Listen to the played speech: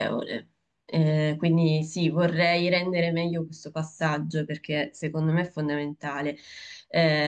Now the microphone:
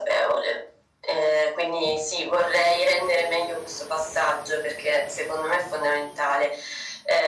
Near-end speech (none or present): none